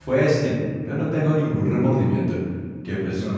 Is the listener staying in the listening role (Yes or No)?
Yes